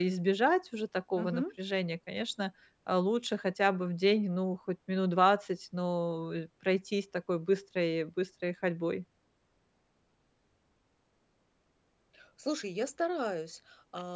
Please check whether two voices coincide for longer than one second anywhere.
No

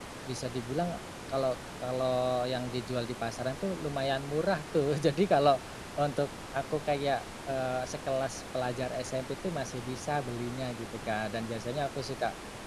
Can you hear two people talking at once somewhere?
No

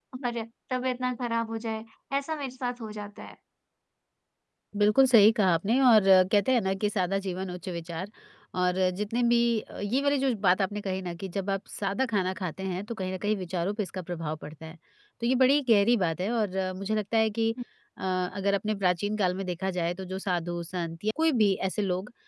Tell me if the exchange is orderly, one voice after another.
Yes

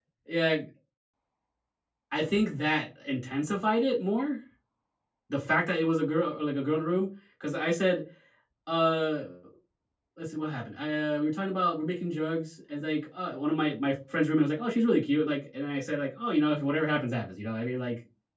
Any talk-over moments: No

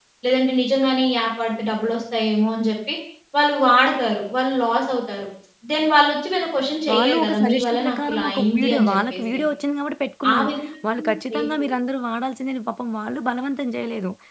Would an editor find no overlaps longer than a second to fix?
No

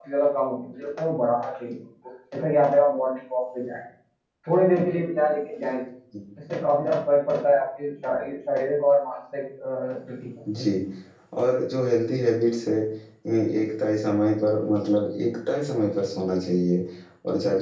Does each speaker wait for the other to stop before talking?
Yes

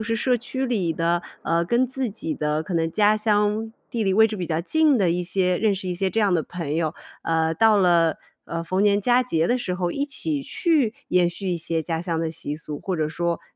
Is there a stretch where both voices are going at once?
No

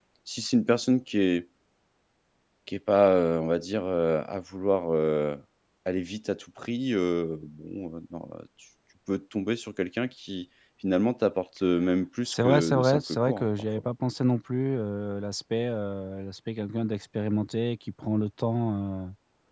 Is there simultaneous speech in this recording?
Yes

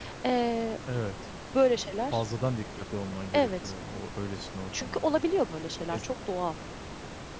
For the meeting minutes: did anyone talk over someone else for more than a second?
No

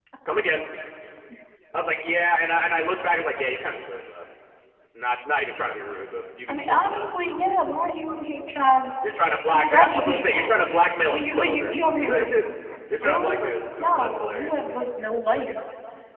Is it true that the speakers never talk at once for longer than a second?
No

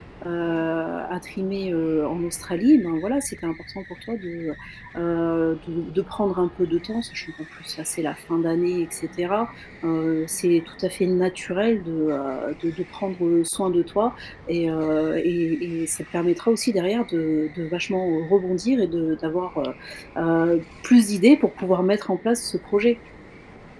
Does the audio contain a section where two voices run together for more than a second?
No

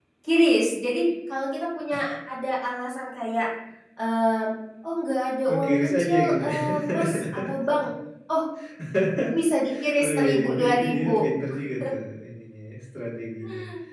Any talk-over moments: Yes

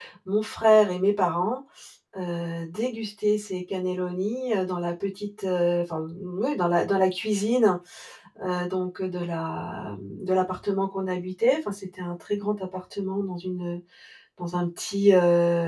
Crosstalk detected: No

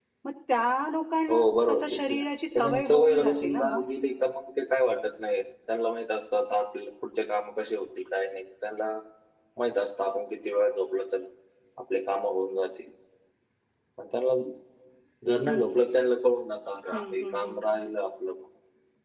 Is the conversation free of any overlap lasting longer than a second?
No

